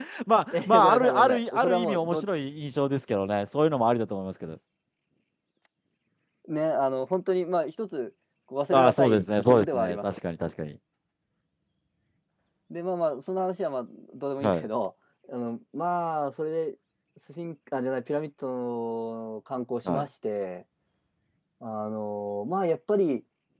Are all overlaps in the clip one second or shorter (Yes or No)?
No